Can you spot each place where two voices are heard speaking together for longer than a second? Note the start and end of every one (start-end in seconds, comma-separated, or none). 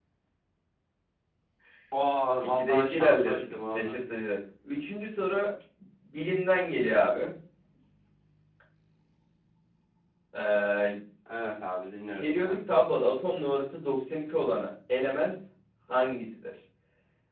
2.4-4.0